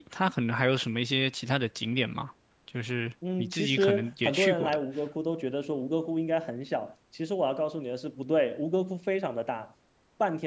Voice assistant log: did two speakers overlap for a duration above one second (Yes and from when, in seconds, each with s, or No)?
Yes, from 3.2 s